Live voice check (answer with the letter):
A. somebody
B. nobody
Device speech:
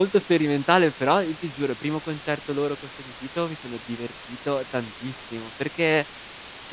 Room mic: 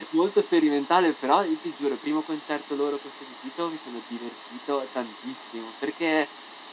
B